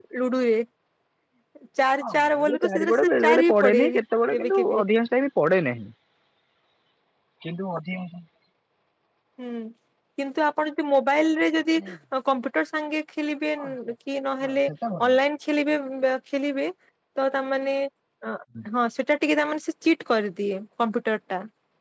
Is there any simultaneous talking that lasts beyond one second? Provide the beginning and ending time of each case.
2.0-3.8

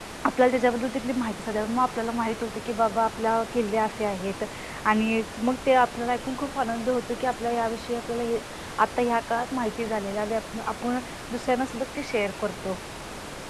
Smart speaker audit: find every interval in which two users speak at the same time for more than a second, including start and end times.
none

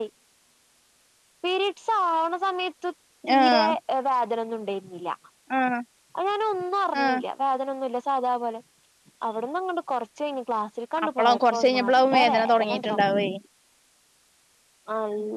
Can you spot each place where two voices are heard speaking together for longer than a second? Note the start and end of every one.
11.1-13.0

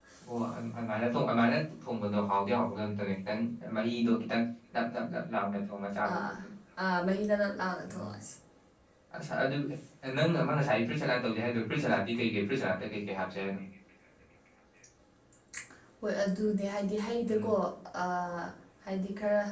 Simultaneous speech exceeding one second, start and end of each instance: none

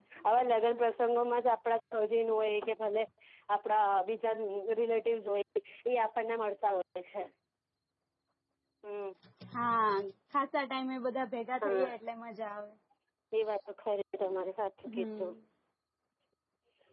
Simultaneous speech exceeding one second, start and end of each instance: none

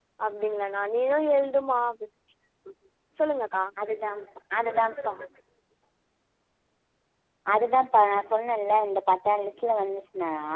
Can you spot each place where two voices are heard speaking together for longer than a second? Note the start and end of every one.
none

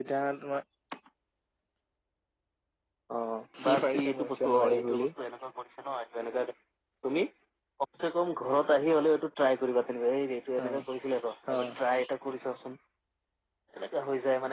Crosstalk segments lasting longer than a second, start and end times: 3.6-5.1

